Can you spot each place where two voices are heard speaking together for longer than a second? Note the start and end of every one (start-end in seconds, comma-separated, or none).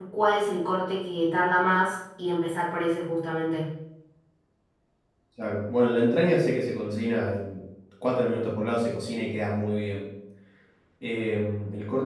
none